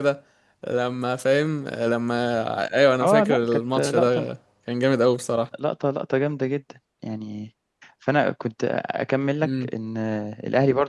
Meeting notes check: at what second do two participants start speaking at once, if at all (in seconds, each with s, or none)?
3.0 s